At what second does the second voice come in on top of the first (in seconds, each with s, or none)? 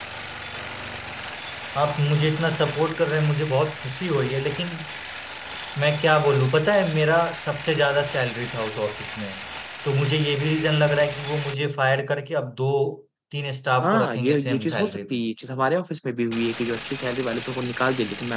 13.8 s